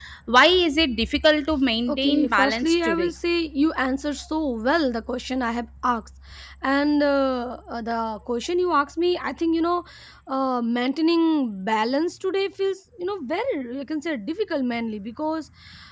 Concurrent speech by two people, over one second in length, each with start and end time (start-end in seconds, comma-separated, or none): 1.9-3.1